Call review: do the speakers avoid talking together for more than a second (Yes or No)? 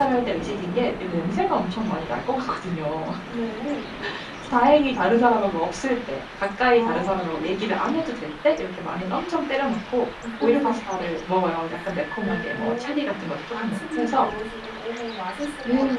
No